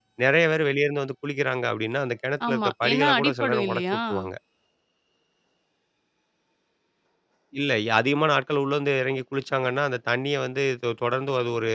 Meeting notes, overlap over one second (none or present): present